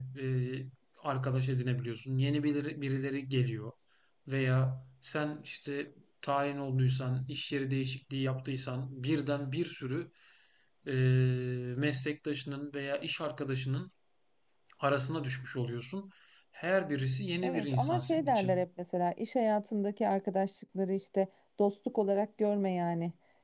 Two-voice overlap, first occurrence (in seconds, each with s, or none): 17.4 s